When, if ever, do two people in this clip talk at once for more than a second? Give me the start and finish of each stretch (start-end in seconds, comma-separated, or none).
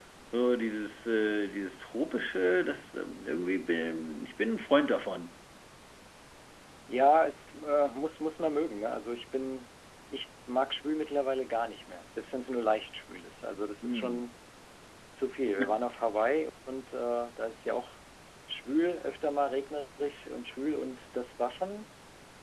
none